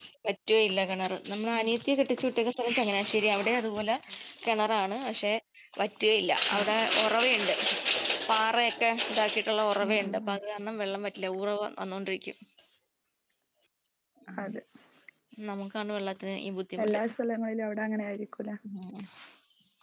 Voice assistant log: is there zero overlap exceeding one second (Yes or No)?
Yes